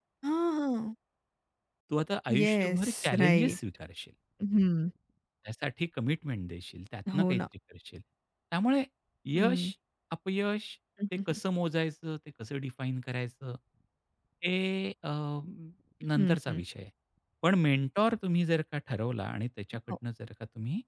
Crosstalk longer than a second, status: present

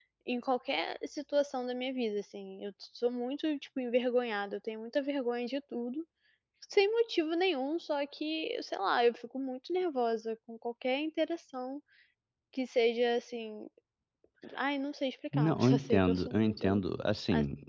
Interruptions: present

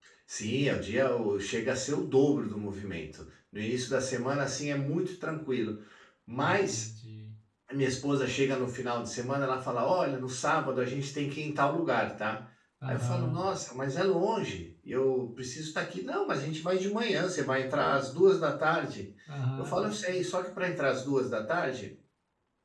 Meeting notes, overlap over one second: none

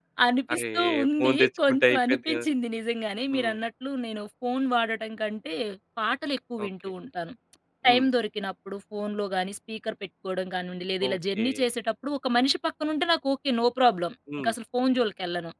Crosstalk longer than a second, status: present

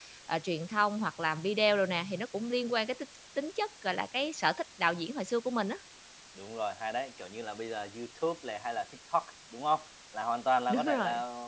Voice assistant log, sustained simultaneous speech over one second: none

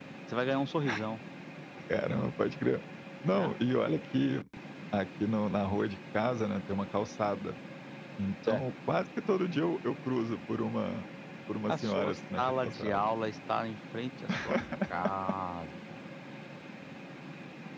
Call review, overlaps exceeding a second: present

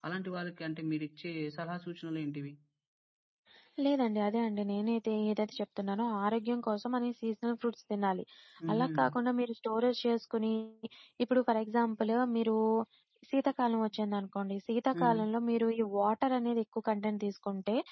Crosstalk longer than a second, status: none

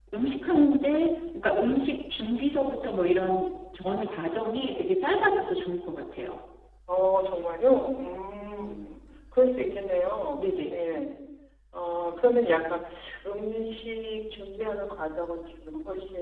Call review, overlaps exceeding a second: none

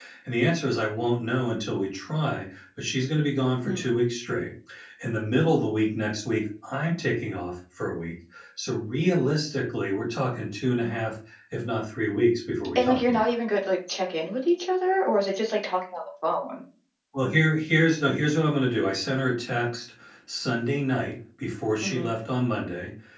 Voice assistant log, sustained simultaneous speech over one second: none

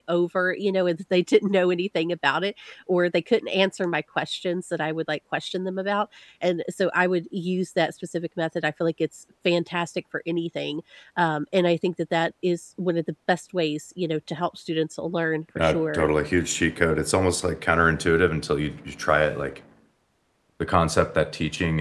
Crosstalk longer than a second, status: none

